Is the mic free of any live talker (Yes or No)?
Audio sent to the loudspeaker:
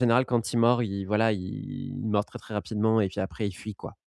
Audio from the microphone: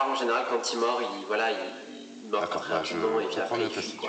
No